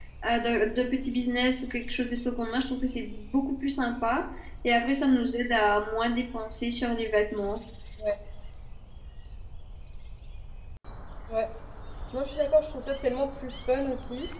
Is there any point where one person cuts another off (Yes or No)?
No